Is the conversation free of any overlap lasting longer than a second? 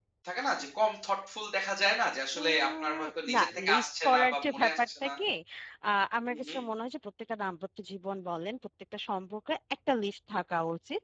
No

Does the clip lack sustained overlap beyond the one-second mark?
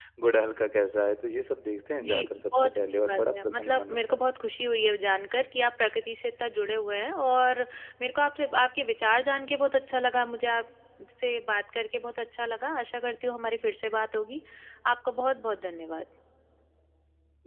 No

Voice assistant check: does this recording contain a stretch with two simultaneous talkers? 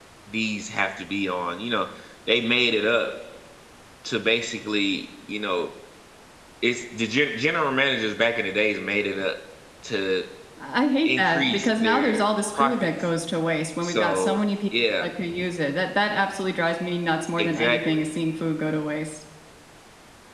Yes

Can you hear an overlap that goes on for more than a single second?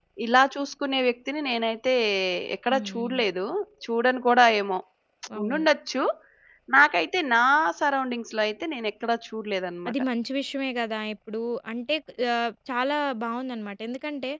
No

